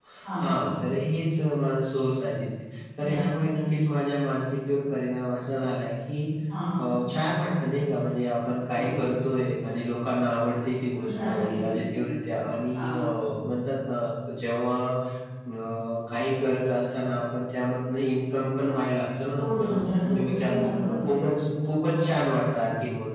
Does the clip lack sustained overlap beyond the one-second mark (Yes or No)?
No